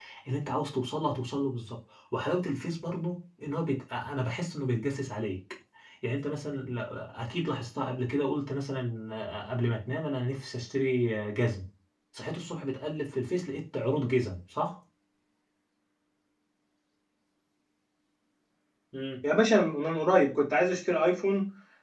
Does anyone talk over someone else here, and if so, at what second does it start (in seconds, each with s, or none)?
none